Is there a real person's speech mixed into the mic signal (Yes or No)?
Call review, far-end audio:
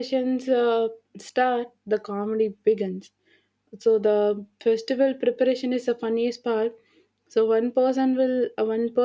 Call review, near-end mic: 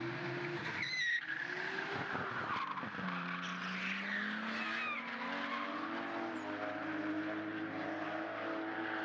No